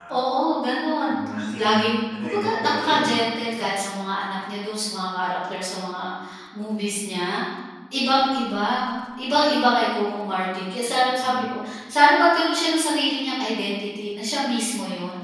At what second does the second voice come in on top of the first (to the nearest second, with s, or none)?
2 s